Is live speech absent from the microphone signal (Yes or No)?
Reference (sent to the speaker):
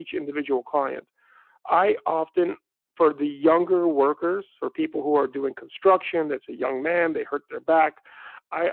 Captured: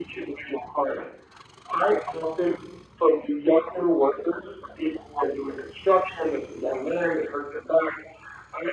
Yes